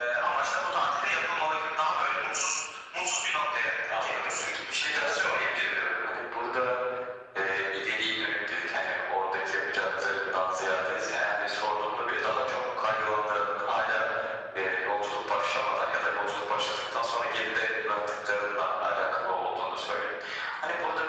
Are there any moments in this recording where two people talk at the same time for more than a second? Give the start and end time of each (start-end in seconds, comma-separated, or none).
4.0-5.9